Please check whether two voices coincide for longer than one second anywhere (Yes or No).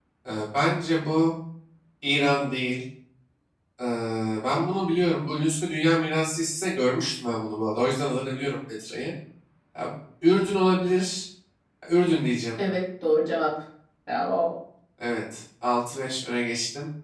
No